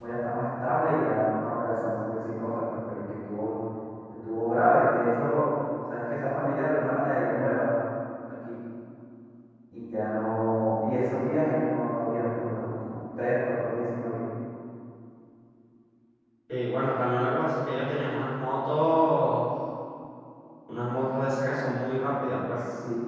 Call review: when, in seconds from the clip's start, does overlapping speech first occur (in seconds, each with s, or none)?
none